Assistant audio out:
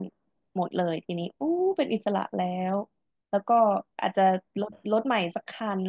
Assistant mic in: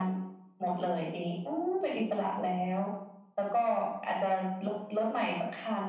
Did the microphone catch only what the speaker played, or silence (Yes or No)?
Yes